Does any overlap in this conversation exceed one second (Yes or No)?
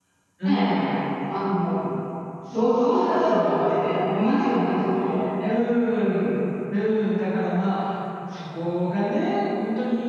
Yes